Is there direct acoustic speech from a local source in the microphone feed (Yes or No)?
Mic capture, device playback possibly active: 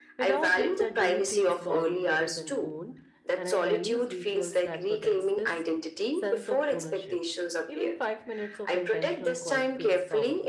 Yes